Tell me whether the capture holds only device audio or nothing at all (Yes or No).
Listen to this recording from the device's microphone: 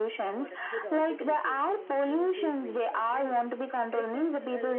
No